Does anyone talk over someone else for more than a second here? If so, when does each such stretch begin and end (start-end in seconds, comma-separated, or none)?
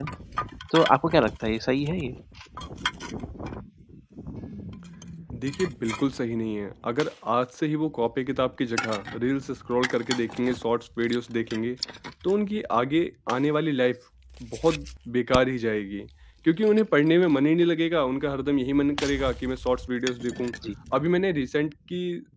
none